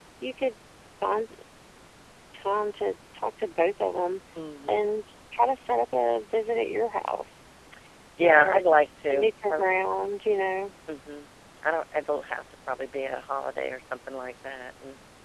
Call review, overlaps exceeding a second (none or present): present